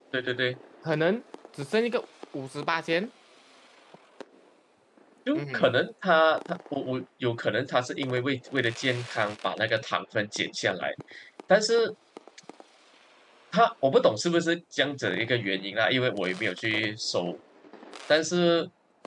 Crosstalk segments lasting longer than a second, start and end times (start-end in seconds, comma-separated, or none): none